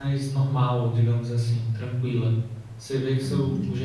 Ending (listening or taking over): listening